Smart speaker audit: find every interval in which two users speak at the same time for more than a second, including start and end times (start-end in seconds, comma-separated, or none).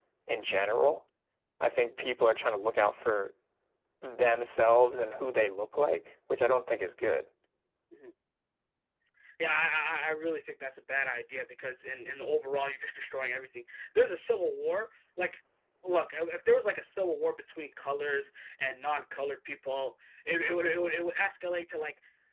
none